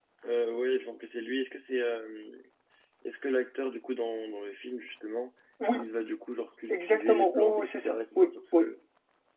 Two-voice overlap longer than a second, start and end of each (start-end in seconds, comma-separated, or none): 6.7-8.7